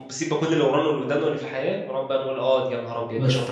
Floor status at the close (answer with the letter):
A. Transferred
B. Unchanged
A